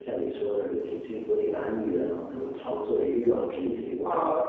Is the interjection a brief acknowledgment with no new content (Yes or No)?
No